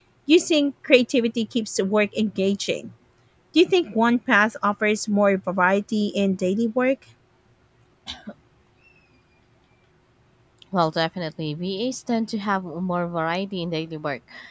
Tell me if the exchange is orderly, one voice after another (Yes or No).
Yes